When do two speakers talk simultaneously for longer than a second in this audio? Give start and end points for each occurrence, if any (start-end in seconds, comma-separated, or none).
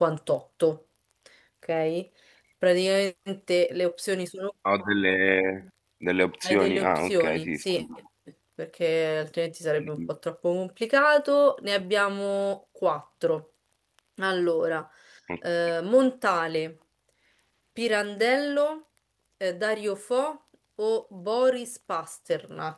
6.4-7.8